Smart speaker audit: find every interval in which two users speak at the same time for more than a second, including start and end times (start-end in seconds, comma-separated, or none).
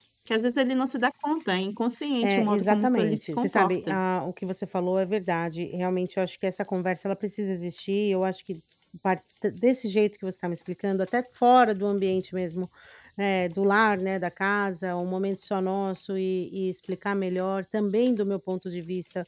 2.2-3.9